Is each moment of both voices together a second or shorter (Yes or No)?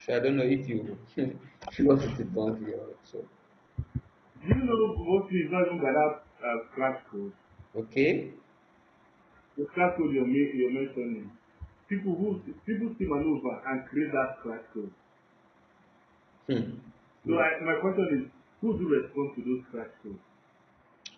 Yes